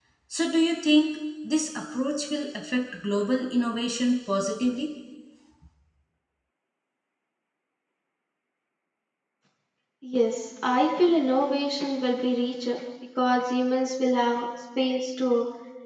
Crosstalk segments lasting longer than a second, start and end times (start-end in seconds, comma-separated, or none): none